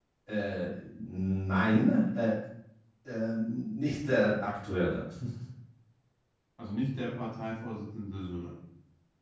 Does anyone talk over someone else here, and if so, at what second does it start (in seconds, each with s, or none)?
none